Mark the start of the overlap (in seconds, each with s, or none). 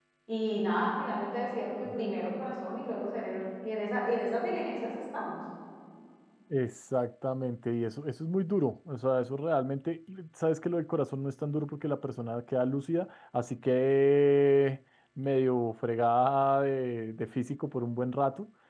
none